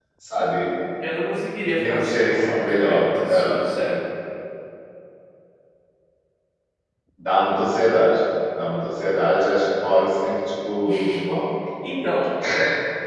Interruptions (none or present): present